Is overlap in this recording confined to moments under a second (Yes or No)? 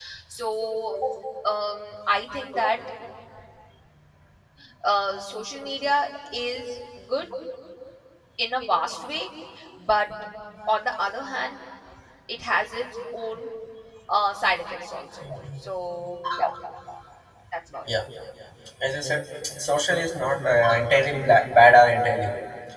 Yes